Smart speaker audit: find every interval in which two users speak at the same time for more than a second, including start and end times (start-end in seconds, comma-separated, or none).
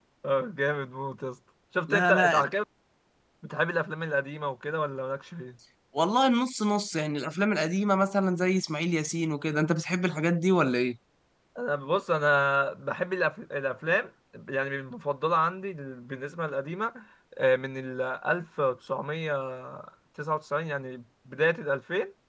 none